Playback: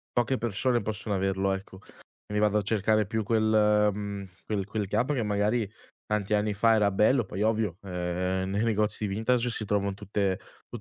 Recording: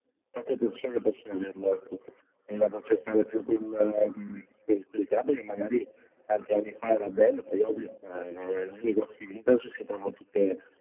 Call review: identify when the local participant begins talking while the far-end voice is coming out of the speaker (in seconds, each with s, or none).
none